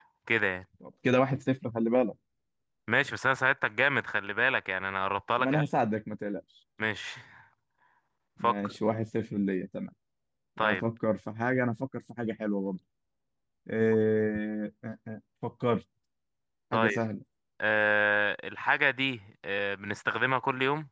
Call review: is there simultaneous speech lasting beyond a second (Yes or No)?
No